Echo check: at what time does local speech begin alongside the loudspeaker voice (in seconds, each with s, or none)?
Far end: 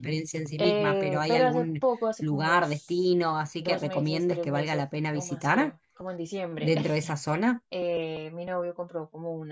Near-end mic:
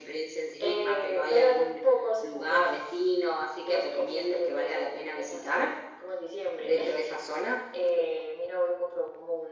none